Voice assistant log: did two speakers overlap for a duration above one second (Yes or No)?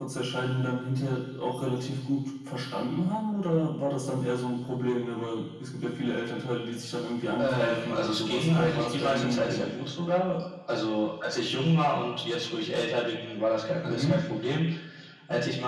Yes